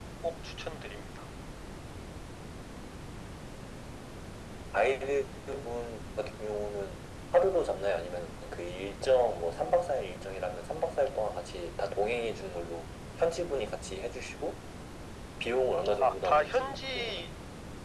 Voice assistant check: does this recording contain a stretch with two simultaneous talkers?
Yes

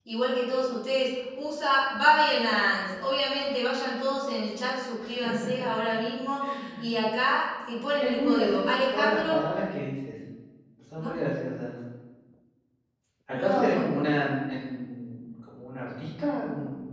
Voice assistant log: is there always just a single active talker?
No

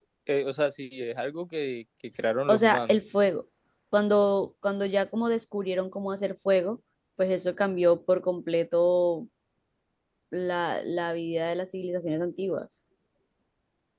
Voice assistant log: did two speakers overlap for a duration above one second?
No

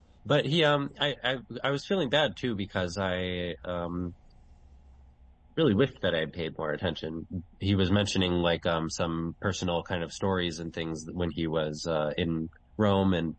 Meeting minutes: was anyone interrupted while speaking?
No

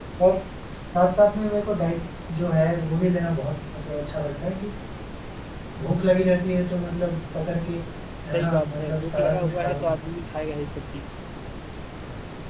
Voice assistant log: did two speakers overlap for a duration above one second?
Yes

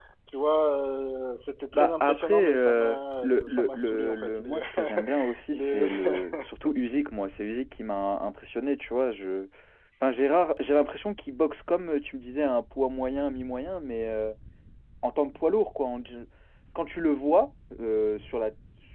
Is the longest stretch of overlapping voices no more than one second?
No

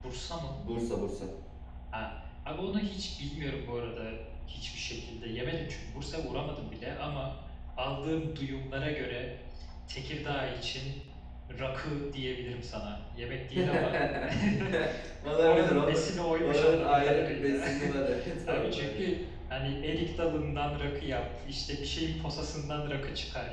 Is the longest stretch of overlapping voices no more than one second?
No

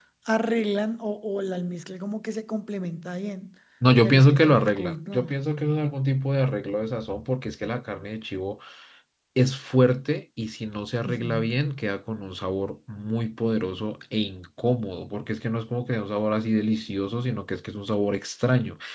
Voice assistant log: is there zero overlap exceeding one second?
No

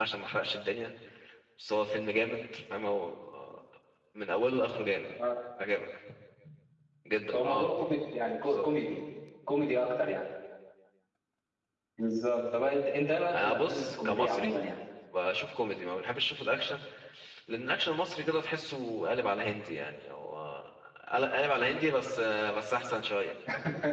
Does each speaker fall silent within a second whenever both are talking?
No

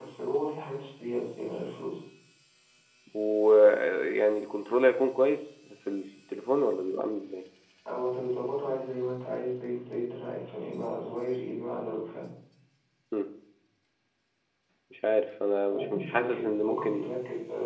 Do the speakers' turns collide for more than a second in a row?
Yes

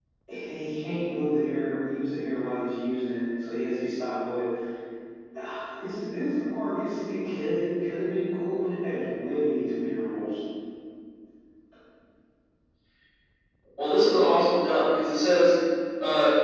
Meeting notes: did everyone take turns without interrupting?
Yes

